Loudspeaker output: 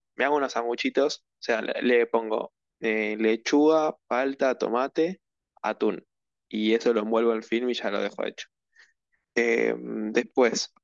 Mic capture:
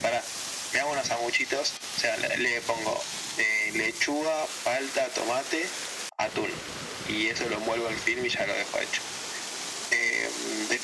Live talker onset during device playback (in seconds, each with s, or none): none